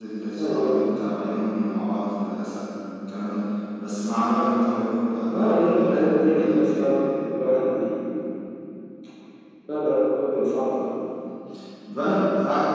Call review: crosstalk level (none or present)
present